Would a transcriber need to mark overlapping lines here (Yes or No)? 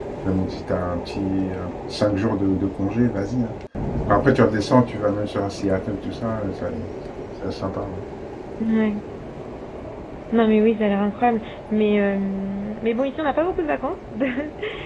No